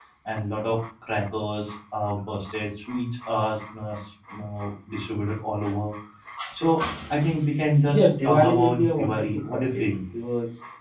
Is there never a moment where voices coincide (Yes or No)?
No